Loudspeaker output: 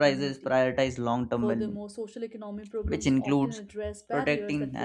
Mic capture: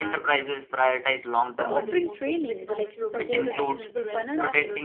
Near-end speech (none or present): present